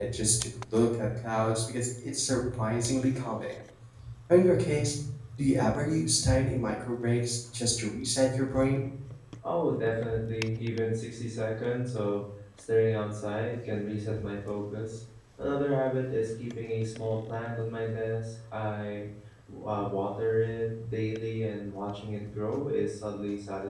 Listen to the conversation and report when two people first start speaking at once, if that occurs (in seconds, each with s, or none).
none